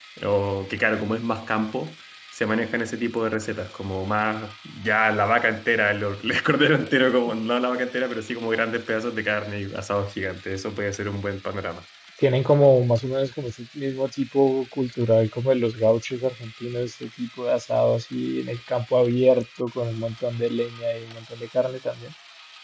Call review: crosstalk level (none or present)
none